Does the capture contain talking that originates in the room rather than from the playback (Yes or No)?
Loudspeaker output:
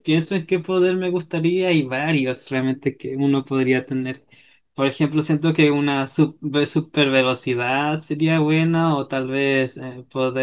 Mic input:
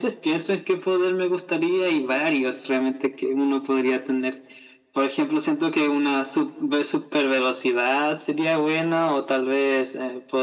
No